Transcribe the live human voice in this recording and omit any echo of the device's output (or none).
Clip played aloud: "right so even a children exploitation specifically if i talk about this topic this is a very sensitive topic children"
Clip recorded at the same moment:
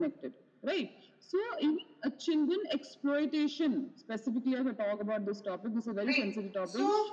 right so